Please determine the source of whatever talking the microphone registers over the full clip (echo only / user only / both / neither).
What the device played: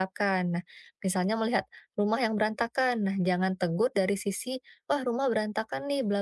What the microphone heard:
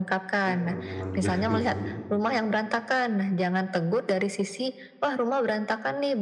both